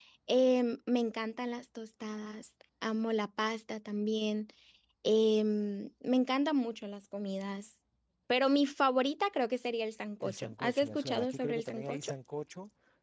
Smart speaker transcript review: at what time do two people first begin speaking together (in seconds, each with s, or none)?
10.2 s